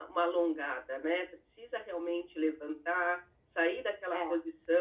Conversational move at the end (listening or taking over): listening